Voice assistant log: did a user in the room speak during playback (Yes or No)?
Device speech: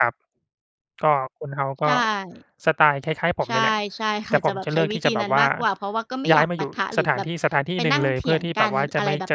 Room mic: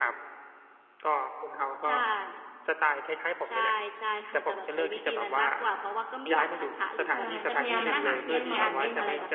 Yes